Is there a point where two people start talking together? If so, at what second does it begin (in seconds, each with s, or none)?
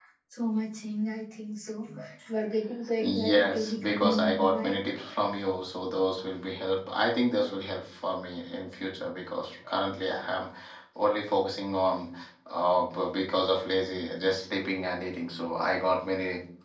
3.0 s